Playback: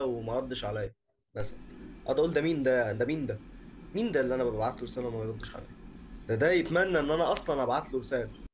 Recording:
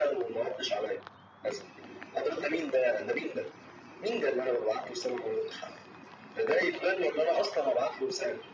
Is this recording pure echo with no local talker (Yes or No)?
Yes